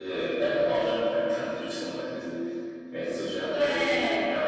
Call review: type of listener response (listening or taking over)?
listening